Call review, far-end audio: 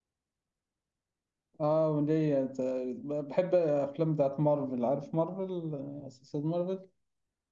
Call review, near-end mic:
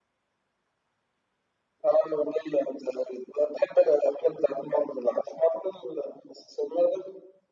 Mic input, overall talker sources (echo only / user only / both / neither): echo only